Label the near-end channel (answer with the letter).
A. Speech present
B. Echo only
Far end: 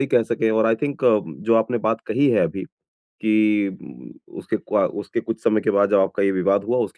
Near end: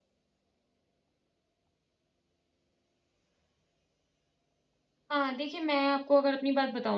A